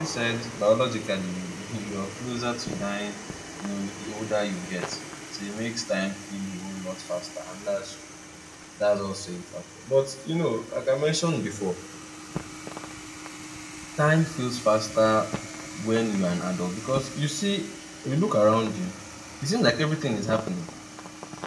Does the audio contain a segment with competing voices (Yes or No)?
No